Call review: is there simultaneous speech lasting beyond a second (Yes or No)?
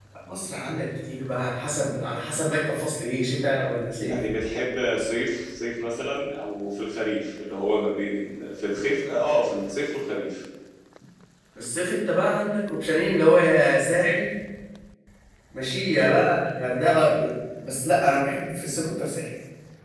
No